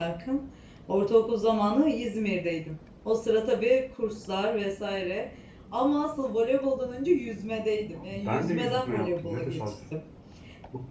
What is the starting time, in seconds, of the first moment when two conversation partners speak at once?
8.0 s

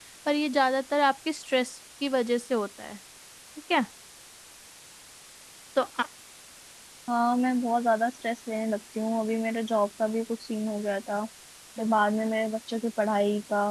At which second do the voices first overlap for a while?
none

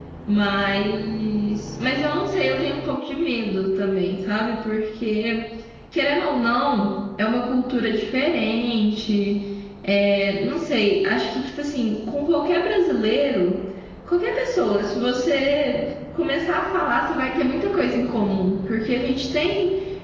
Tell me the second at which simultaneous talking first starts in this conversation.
none

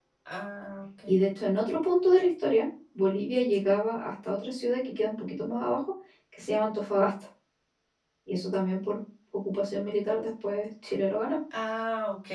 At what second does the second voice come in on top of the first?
none

